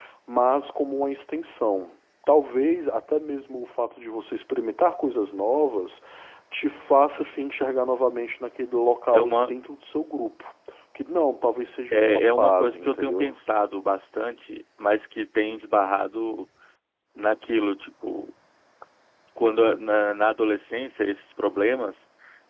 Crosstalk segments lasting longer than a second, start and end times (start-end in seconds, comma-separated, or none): 11.9-13.3